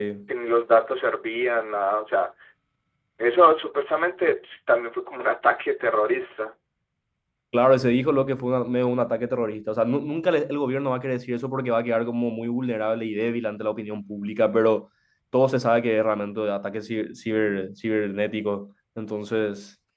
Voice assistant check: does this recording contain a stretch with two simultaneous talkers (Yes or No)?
No